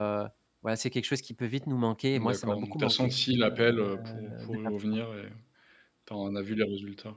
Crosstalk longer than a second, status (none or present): present